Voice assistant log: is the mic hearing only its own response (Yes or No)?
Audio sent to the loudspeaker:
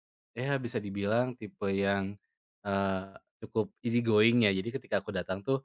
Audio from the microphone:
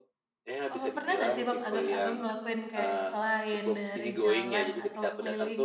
No